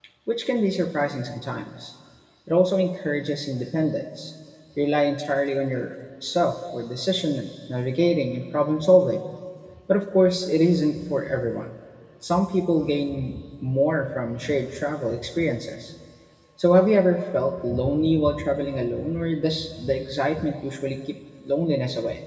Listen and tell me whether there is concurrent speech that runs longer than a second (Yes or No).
No